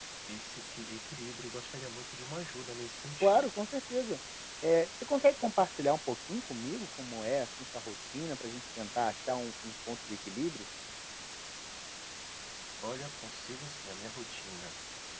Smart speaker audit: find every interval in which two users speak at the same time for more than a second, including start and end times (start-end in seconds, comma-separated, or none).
none